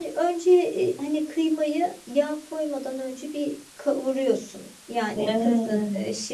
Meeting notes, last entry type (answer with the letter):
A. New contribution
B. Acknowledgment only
B